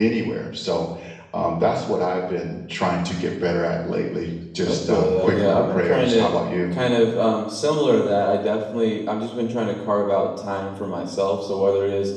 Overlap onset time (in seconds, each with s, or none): 4.6 s